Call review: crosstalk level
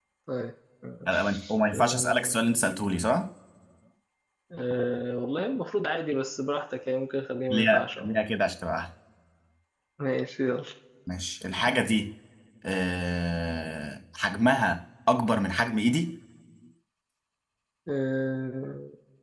present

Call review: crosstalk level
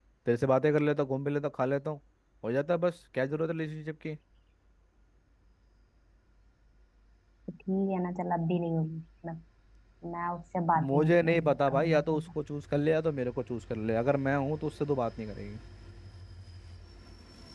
present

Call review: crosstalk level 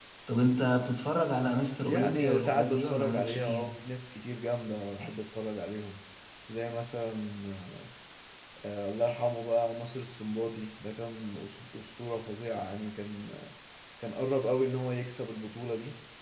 present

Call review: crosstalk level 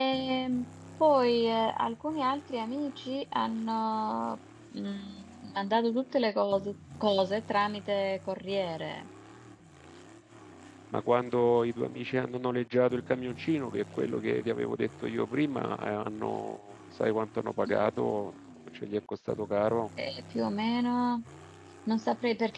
none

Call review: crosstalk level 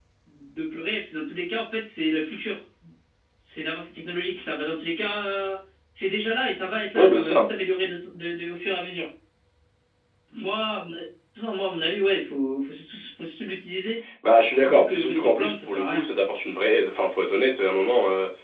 present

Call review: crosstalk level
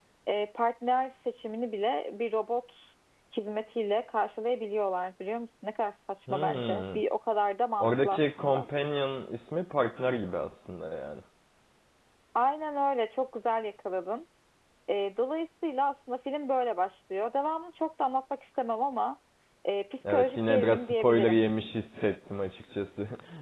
present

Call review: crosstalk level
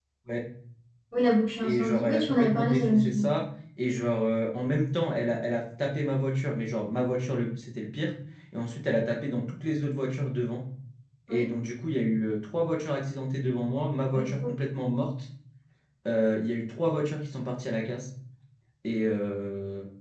present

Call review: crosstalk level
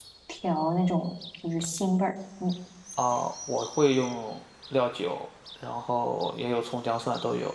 none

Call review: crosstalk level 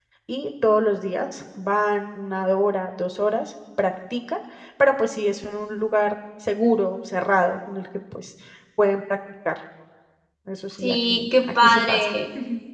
present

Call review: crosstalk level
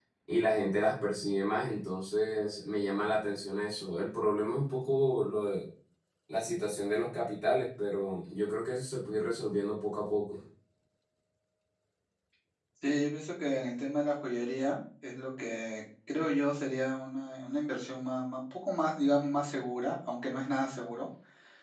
none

